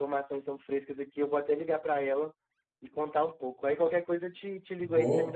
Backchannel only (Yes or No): No